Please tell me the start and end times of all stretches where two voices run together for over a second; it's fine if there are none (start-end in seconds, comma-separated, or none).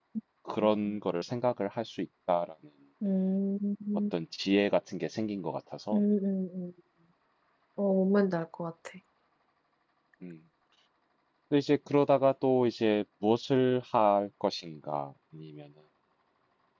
none